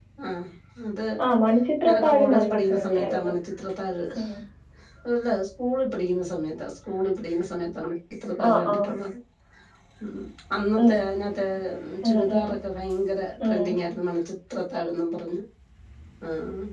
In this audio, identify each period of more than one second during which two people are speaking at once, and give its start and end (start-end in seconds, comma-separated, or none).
1.8-3.2